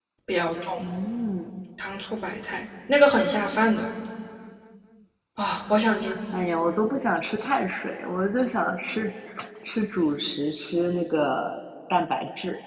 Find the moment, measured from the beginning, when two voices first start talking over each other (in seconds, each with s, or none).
none